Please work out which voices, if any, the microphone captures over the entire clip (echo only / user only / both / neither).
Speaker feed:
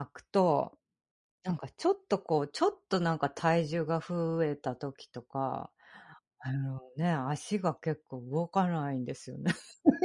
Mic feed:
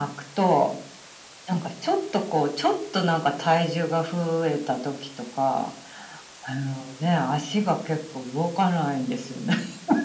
echo only